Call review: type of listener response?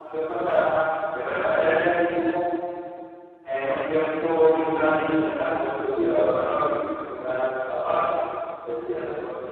listening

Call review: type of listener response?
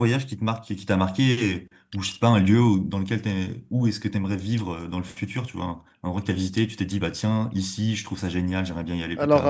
taking over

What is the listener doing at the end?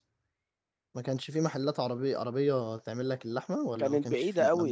taking over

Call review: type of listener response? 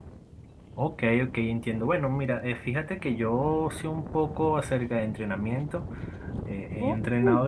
listening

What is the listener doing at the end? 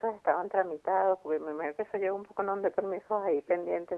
taking over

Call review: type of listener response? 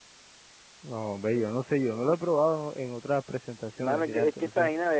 taking over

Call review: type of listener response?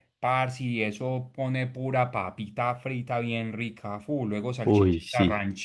listening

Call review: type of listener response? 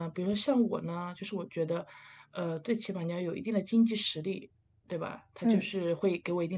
listening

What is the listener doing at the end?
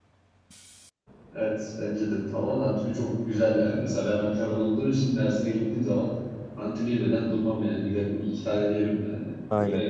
taking over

